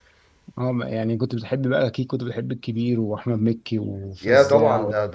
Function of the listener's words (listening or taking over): taking over